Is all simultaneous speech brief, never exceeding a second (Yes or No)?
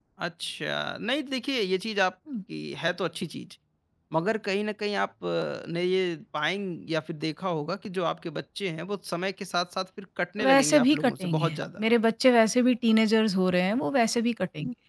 No